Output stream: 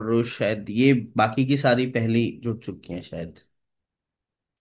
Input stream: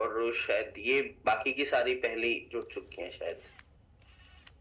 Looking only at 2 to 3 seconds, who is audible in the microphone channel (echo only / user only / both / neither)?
echo only